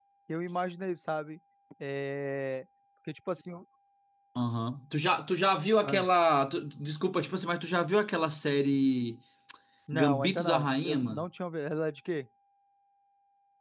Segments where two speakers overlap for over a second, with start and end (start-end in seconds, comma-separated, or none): 9.9-11.2